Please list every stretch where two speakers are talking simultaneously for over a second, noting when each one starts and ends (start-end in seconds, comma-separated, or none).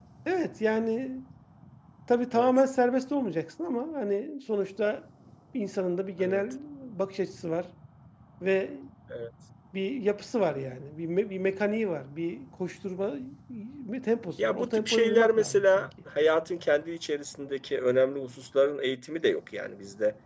14.4-15.9